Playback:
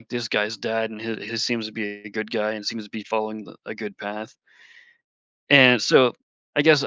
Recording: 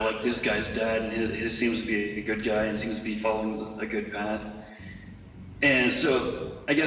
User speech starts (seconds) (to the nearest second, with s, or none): none